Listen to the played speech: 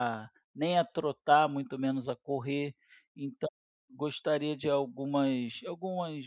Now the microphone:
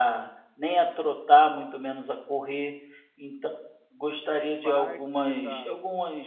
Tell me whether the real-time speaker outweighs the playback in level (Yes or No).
No